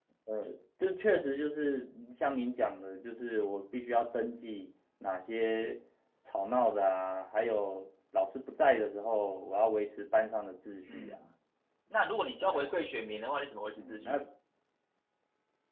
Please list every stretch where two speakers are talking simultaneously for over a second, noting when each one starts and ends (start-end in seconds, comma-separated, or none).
none